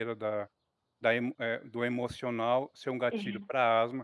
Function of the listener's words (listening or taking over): listening